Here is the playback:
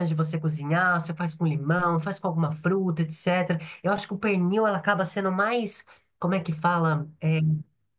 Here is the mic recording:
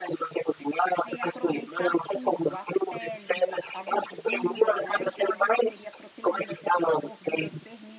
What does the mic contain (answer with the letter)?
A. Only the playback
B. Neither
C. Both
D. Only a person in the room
C